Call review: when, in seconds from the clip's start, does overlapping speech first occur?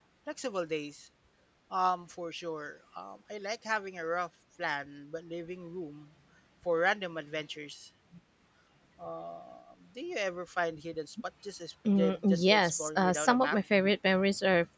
12 s

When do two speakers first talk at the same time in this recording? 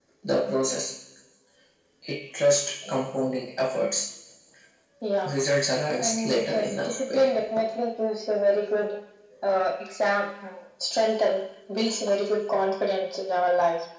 6 s

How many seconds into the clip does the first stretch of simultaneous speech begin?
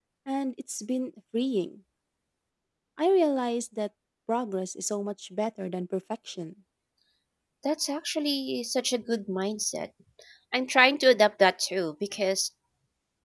none

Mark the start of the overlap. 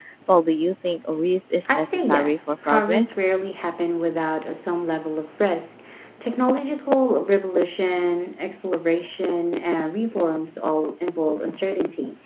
2 s

